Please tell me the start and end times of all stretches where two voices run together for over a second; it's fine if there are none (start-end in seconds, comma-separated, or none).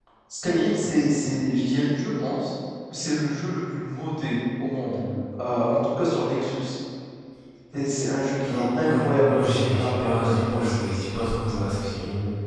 8.4-11.9